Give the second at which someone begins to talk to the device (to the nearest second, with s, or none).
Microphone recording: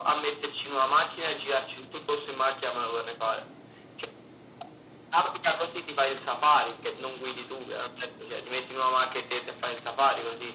none